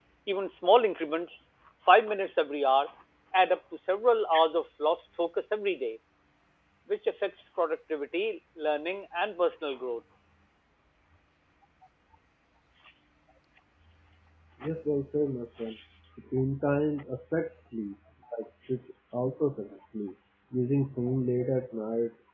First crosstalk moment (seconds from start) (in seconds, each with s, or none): none